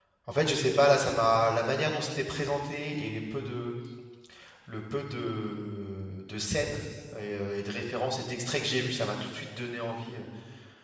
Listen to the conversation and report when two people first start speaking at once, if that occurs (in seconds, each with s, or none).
none